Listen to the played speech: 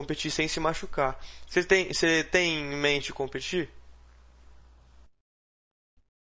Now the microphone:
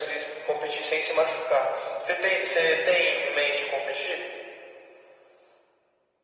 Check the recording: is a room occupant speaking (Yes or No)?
No